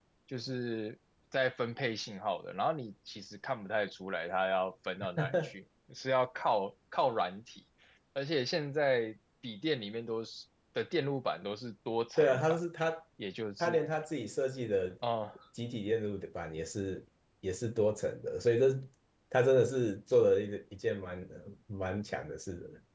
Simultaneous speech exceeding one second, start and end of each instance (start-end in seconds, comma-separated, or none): none